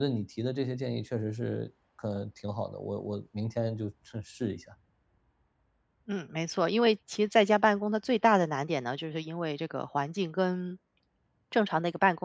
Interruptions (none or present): none